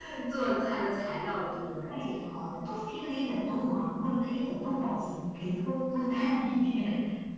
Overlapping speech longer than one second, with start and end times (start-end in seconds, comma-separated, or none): none